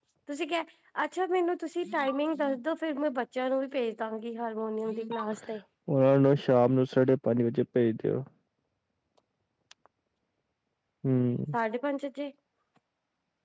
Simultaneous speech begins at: none

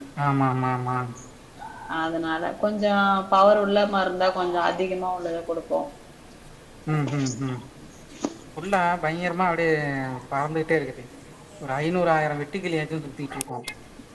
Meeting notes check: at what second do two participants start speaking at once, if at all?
none

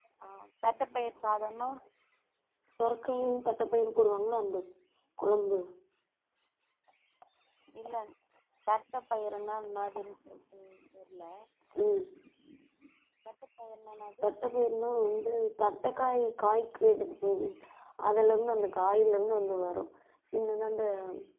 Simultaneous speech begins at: none

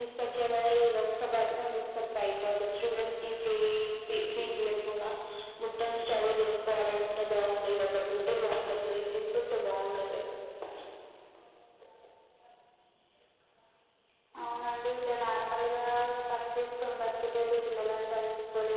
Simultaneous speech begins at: none

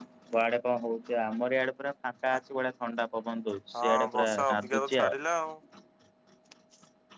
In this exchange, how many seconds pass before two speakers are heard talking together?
3.7 s

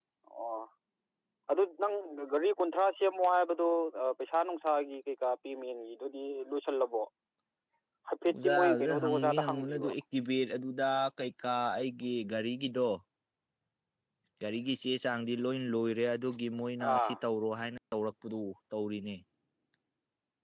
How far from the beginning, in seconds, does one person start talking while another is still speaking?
8.4 s

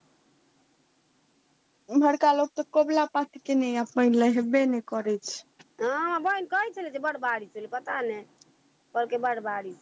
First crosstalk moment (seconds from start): none

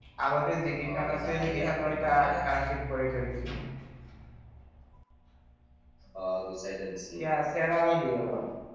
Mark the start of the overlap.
0.9 s

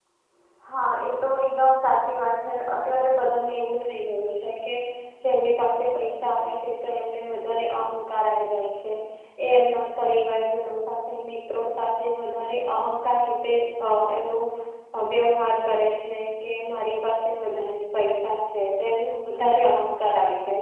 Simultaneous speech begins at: none

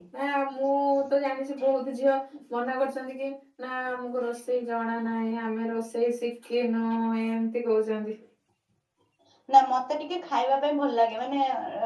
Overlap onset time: none

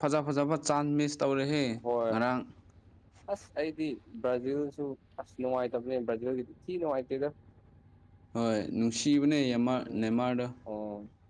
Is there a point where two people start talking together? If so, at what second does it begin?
none

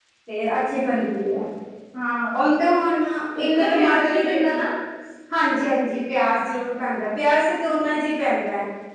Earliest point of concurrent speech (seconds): 3.4 s

